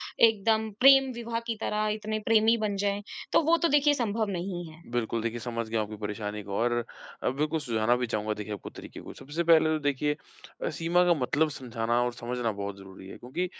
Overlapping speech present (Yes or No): No